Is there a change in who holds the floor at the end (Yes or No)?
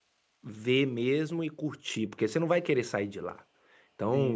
No